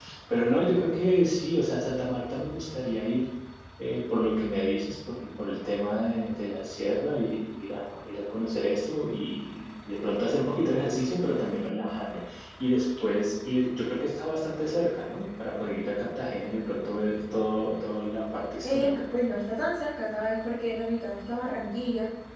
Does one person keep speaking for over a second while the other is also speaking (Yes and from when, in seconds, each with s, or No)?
No